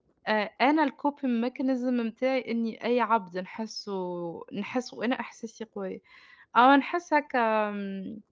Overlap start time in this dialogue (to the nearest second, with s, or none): none